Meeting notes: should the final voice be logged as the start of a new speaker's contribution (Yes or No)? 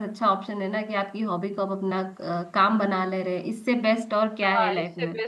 Yes